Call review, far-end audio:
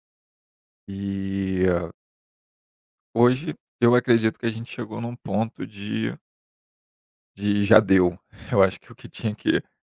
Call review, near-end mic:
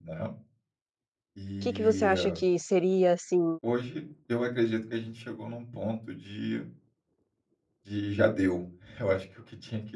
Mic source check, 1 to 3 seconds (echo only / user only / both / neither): both